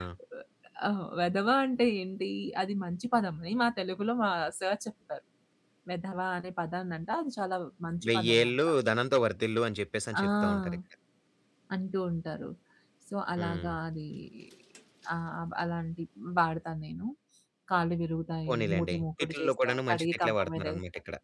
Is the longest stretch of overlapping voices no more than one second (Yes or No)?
No